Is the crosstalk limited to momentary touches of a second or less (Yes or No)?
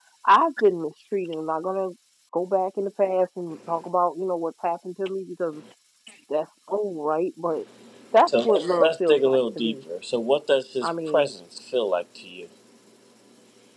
No